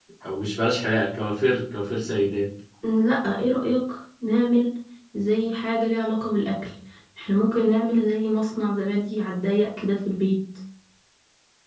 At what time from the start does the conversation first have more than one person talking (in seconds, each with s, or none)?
none